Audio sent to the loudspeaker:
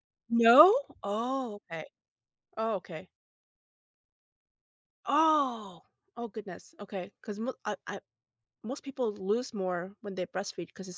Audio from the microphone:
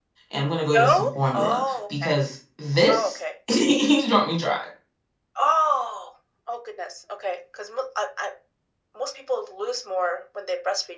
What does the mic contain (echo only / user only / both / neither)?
both